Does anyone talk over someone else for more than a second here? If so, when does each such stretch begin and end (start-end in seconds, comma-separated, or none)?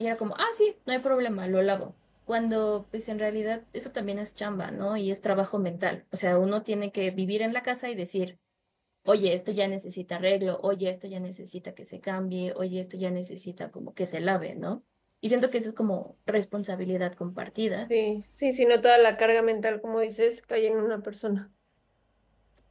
none